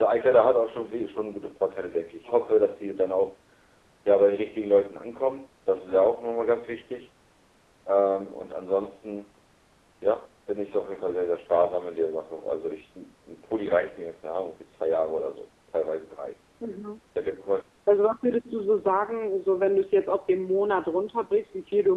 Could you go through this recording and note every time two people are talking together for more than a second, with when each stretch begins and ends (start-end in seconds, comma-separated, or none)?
none